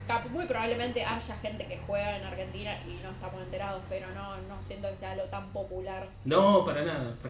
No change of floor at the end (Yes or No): No